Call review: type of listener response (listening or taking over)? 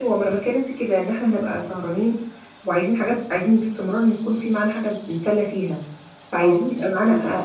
listening